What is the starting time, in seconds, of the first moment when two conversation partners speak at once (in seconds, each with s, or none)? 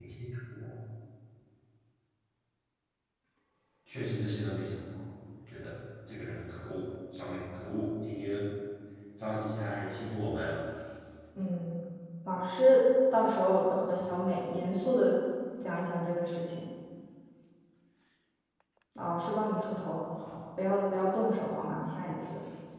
none